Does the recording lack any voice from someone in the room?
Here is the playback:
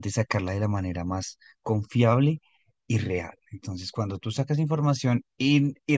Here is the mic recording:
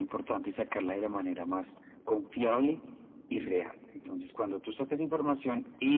Yes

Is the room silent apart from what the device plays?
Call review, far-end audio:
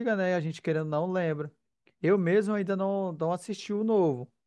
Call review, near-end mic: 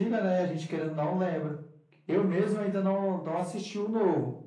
Yes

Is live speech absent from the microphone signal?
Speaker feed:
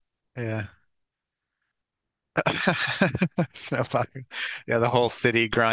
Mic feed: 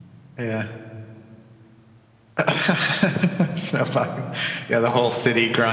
Yes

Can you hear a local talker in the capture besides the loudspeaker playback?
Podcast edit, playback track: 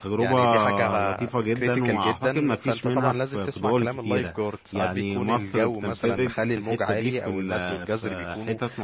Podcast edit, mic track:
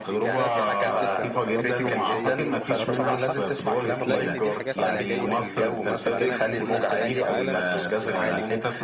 Yes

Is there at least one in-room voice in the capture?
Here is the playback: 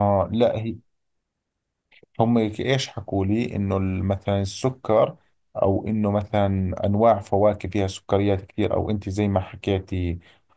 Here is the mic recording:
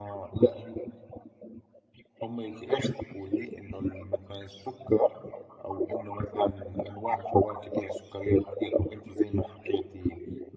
No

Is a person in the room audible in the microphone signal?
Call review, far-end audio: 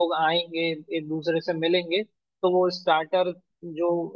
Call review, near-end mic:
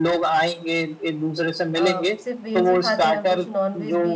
Yes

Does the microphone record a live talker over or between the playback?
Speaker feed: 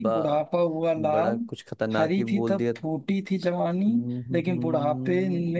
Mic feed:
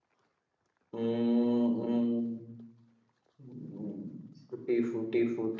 Yes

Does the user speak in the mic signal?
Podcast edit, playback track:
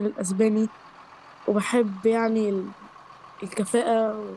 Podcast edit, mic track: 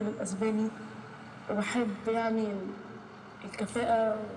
No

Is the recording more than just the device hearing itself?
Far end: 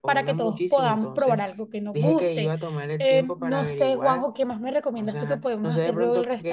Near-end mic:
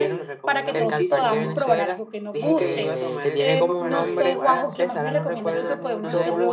Yes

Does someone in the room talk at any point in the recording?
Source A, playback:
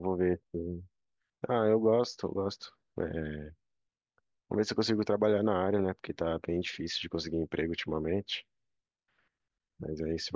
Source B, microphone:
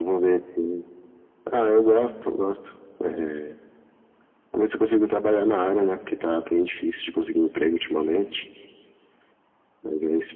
No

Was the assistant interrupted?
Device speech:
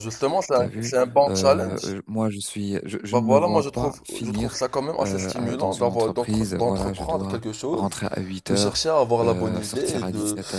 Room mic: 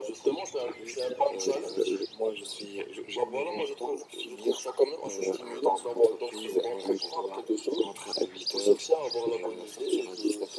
No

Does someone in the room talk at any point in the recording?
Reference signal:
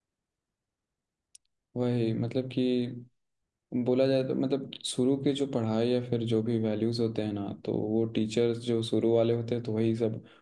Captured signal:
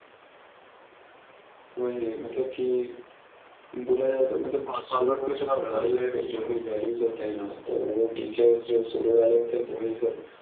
Yes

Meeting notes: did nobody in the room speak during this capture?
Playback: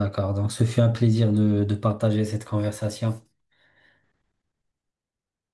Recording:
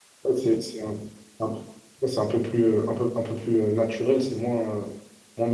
No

